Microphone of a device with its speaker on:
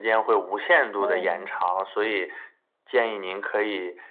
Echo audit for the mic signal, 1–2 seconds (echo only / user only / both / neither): both